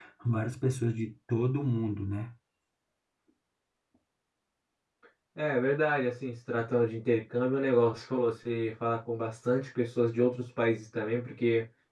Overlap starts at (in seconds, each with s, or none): none